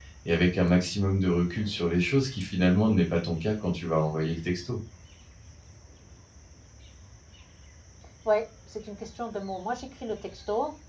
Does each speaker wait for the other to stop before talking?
Yes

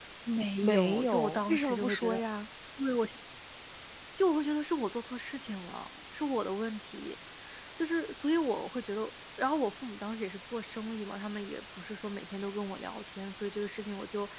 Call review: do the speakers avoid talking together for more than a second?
No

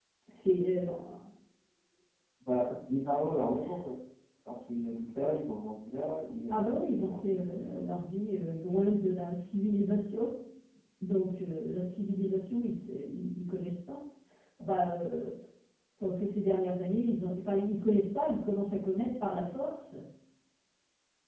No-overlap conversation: No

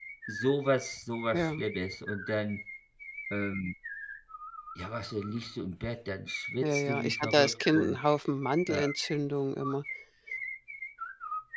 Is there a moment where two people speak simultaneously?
Yes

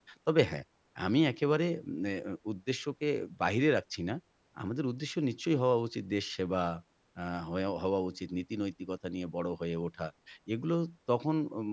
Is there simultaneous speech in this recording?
No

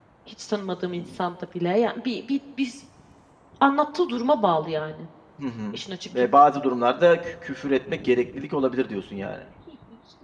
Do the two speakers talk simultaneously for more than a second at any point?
No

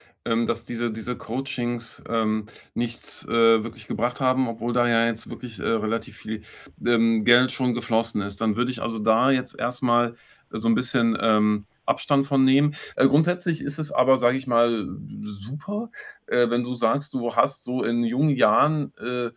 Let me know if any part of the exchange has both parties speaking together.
No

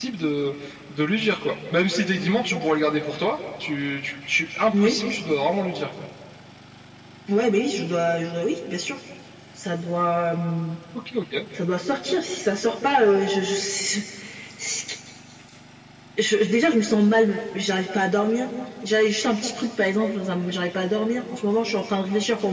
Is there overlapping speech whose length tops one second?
No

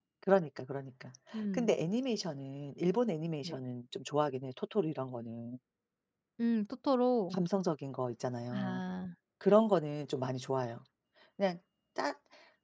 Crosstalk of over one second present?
No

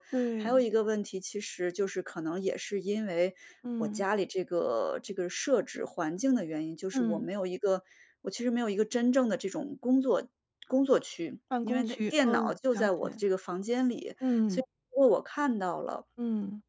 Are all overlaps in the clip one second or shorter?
No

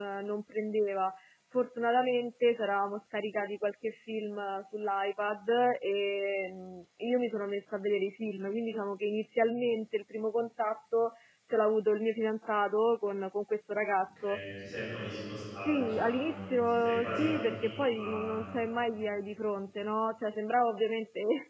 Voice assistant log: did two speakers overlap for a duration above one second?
Yes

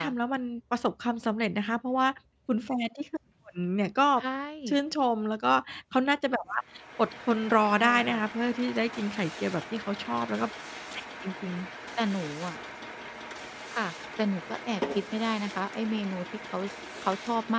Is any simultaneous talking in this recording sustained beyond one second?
No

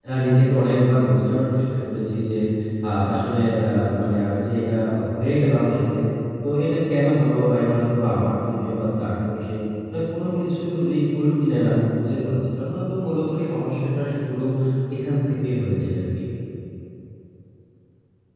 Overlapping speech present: No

